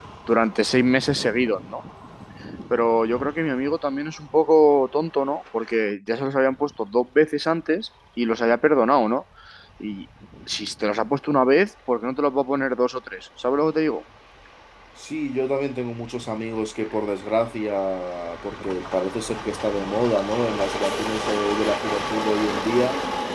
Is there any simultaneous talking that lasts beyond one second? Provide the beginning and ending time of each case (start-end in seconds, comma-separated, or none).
none